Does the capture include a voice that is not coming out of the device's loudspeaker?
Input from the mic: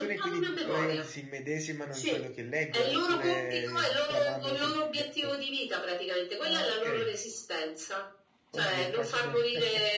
Yes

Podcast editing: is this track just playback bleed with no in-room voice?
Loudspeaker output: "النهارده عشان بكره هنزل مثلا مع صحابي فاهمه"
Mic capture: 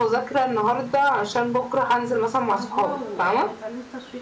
No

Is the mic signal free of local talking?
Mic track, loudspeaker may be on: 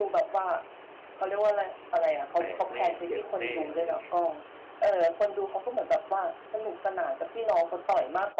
No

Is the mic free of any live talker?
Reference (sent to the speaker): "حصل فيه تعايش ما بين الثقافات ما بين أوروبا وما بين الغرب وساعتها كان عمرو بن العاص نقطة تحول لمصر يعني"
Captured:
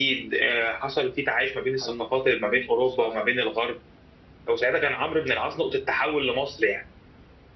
No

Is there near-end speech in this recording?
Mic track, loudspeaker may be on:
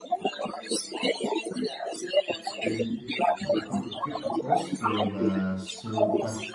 Yes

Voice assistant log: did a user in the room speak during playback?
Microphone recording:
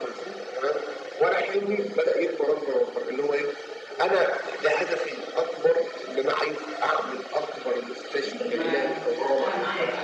Yes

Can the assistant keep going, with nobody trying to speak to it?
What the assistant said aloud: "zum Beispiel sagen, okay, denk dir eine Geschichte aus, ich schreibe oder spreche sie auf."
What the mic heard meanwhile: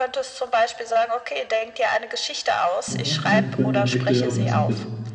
No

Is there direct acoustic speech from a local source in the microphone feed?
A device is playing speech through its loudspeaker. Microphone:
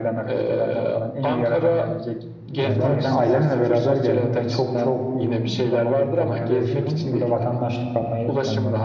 Yes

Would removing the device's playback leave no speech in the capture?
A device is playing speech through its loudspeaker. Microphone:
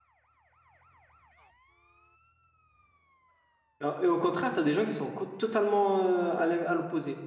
No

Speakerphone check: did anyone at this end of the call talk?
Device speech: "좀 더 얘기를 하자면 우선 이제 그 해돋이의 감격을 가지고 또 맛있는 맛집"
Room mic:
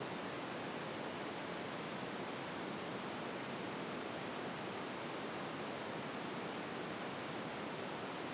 No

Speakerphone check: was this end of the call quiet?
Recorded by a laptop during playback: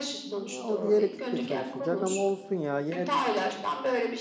No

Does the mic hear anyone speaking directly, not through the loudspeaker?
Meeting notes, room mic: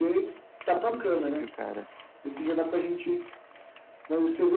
Yes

